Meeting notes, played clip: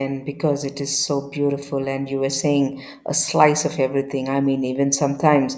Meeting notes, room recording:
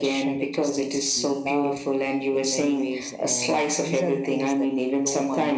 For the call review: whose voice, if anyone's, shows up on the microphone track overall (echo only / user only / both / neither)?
both